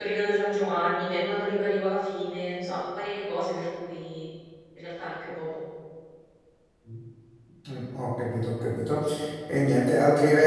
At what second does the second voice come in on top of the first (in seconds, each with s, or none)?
none